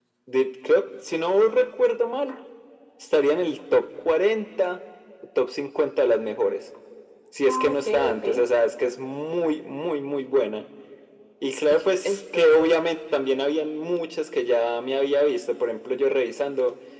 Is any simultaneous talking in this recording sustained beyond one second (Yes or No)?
Yes